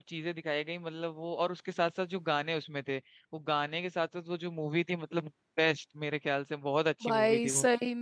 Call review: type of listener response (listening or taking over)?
taking over